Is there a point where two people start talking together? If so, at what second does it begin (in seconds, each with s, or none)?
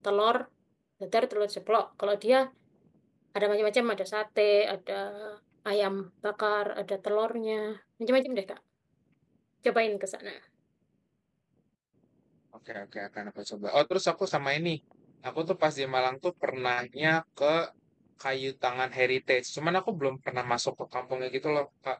none